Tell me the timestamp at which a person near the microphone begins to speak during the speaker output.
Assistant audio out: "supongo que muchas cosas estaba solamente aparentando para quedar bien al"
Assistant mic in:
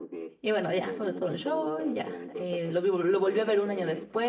0 s

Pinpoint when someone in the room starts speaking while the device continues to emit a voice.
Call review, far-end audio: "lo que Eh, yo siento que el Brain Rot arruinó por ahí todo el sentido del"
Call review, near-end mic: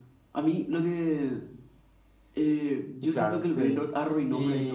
3 s

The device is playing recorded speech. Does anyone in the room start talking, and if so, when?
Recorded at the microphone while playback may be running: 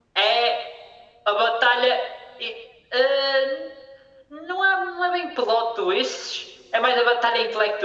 none

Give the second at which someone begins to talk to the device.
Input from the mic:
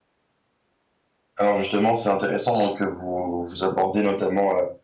1 s

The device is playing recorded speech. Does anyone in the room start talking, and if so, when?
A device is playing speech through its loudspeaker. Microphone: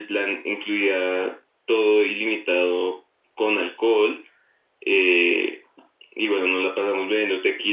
none

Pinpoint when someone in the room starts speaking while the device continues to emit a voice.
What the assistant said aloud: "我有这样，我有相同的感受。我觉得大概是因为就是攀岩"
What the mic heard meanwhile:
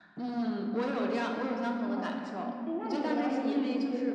2 s

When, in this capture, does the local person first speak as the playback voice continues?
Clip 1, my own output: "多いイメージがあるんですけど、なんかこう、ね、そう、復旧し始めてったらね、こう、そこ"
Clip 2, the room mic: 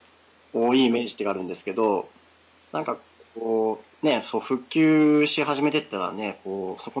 none

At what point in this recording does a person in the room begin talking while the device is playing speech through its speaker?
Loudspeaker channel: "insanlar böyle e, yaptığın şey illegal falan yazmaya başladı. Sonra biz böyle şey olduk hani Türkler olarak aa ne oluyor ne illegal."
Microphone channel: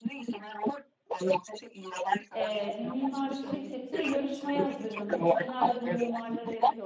2 s

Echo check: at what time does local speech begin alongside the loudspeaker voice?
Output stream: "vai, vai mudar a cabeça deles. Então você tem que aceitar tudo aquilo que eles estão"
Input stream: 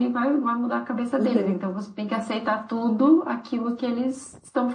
1 s

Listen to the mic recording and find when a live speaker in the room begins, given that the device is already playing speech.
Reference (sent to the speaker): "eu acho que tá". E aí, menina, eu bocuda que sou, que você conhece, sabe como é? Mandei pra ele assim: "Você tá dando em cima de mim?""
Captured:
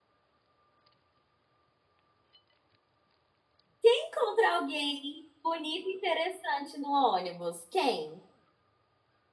4 s

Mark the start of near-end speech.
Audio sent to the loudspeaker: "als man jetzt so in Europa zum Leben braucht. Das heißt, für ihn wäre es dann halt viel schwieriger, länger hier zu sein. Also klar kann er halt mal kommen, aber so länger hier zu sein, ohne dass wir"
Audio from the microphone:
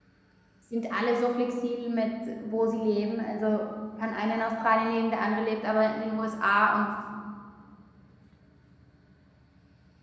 1 s

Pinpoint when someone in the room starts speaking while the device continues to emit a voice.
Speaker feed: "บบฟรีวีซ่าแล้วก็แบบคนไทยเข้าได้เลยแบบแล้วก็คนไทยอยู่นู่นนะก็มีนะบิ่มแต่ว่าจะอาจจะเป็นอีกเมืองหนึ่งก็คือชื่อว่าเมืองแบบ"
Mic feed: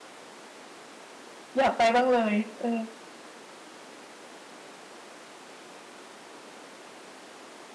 2 s

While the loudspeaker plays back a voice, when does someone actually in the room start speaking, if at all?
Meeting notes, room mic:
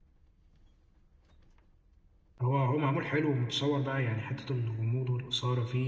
2 s

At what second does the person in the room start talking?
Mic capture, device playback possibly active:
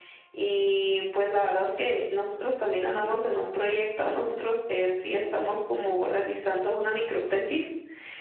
none

